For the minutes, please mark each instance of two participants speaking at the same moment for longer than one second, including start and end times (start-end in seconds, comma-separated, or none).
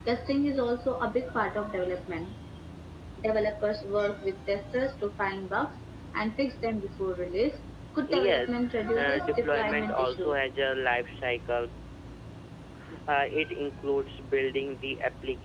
8.9-10.3